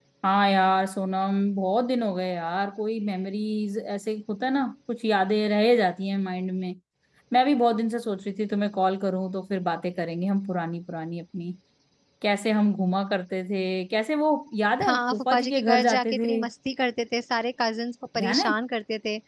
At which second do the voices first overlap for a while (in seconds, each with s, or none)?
14.9 s